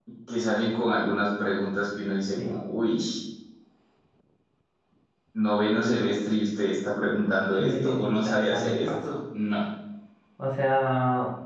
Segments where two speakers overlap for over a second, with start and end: 7.6-8.9

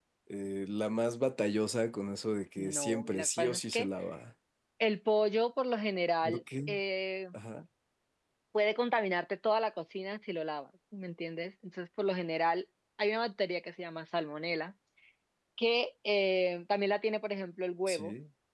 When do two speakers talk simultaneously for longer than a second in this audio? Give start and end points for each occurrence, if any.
2.6-3.9

